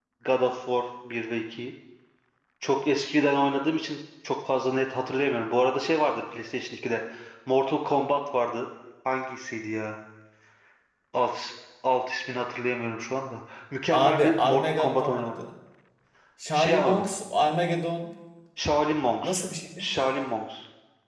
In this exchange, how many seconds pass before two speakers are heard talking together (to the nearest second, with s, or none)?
14 s